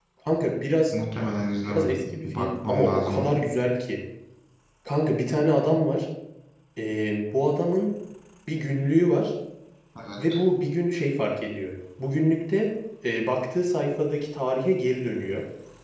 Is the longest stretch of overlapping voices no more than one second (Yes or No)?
No